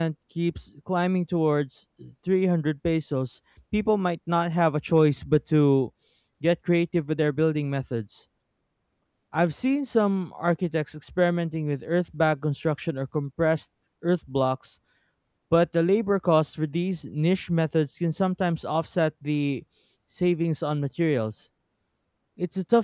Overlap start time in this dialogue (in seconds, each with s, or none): none